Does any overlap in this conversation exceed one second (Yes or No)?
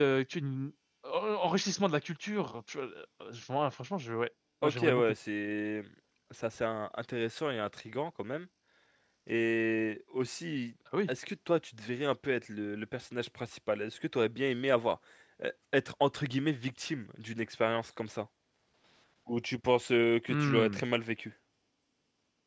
No